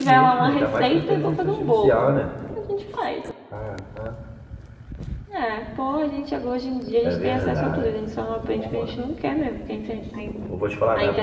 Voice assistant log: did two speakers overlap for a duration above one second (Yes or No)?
Yes